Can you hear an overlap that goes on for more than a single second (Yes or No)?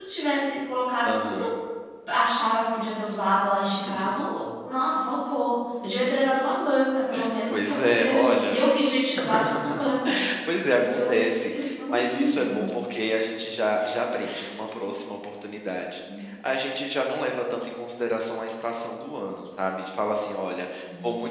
Yes